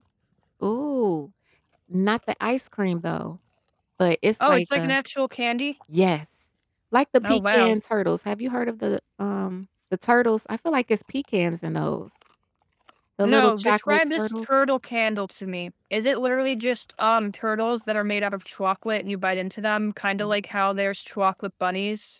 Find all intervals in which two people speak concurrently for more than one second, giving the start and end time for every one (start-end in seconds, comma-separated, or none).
13.2-14.4